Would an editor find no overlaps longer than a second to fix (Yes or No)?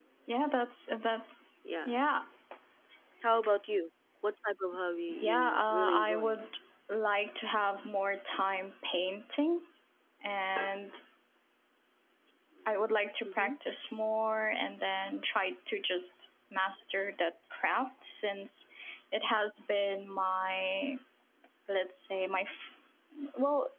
No